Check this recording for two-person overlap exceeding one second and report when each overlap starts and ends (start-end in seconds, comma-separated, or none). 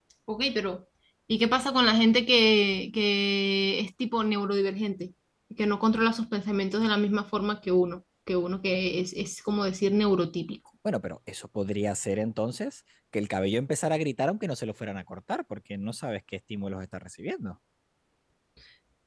none